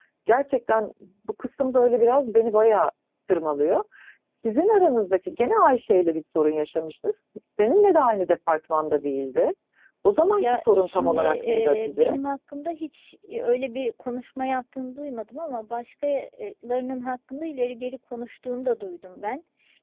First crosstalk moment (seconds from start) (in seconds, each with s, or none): 10.4 s